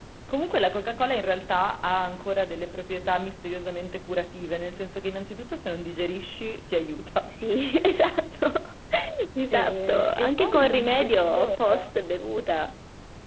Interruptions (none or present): present